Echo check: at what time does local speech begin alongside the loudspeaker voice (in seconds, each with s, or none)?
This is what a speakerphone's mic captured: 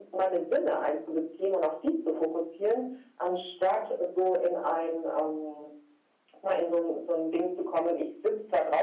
none